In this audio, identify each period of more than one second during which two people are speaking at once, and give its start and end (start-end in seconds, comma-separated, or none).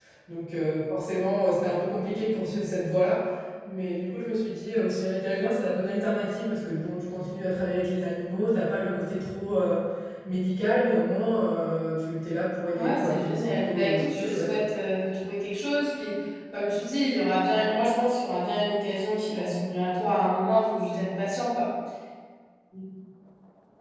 12.7-14.6